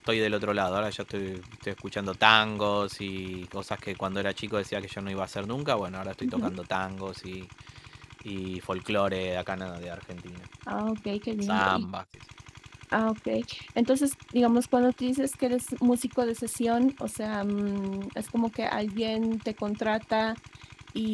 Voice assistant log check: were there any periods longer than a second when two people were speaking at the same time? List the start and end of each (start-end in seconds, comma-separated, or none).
none